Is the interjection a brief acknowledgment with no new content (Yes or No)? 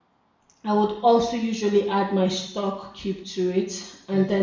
Yes